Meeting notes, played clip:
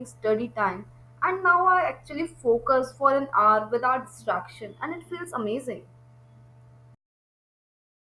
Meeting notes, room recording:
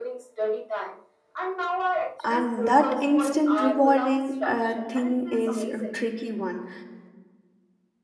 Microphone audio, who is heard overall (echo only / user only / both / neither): both